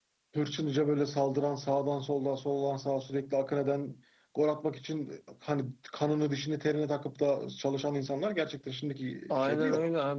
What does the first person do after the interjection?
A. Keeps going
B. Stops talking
B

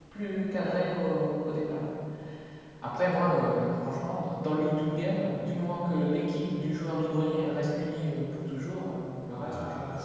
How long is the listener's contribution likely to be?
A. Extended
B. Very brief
A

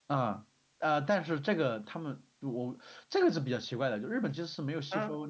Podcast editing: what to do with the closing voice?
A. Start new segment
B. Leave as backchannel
B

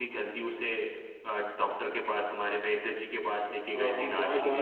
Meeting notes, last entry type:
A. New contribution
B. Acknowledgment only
A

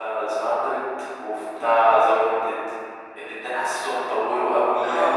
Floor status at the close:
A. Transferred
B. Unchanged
A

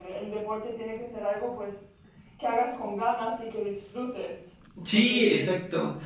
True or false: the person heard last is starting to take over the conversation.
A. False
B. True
B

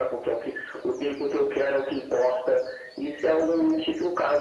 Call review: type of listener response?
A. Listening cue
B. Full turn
A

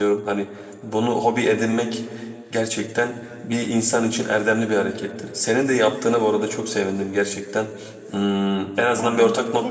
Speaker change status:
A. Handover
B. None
A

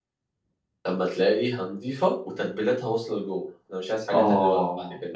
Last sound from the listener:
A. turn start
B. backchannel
A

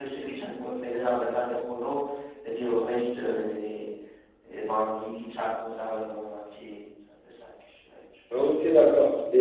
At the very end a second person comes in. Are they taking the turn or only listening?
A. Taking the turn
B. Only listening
A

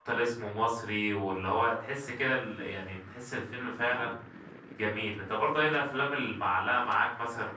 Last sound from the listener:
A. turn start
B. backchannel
B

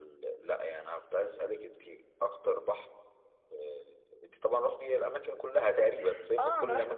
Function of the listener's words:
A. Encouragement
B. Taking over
B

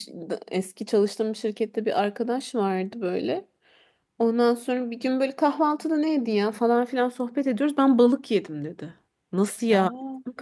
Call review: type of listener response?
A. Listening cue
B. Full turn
A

